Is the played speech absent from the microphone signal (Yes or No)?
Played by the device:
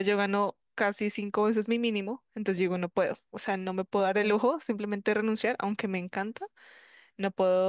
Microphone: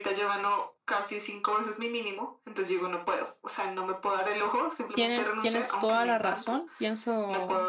No